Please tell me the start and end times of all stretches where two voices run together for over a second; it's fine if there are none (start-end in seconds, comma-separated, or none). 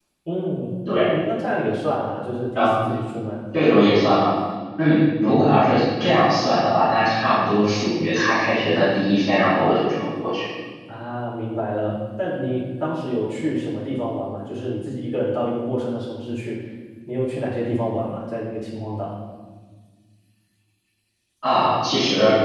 none